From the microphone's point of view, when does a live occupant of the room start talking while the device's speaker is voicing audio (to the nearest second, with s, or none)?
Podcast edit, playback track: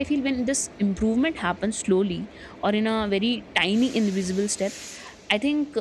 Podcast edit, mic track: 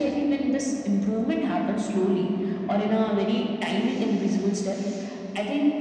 none